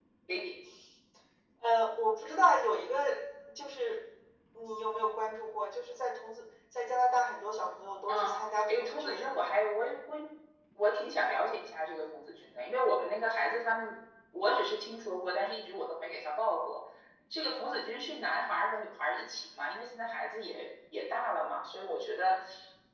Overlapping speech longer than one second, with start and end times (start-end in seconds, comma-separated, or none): 8.1-9.3